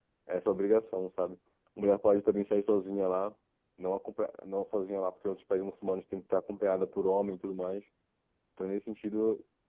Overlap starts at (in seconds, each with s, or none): none